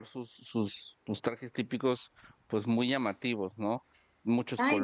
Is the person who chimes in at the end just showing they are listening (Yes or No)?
No